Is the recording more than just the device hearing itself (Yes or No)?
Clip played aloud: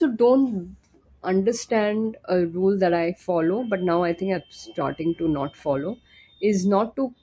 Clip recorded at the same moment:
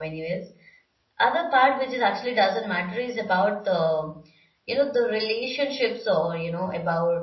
Yes